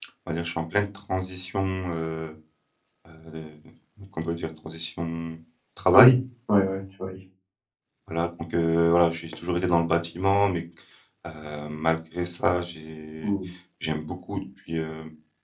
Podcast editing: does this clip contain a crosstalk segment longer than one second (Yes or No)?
No